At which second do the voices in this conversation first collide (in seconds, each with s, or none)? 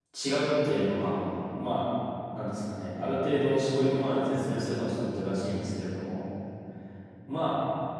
none